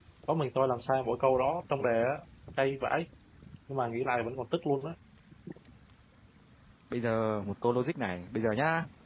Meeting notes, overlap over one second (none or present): none